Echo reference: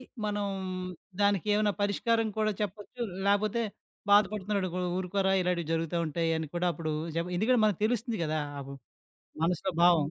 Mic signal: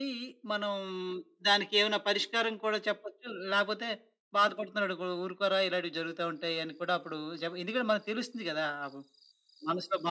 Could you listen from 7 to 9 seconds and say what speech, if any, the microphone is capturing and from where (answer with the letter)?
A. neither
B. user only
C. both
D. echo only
D